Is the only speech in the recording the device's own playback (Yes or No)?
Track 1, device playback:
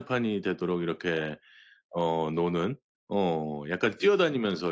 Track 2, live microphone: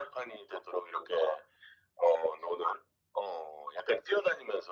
Yes